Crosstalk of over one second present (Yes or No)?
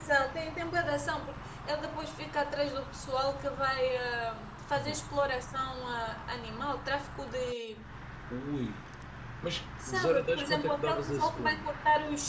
Yes